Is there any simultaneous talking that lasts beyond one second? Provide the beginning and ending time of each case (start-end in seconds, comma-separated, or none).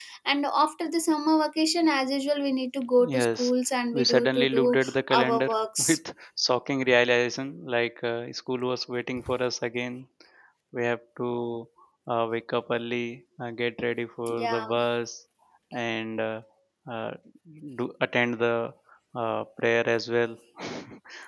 3.9-5.9